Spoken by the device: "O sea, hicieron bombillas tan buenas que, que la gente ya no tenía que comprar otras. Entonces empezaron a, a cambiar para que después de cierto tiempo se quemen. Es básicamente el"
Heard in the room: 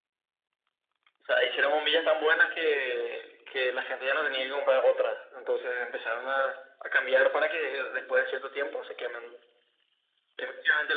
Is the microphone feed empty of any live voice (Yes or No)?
Yes